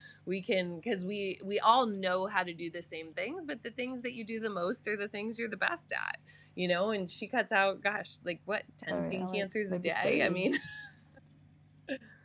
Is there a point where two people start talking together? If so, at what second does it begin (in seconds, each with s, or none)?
8.9 s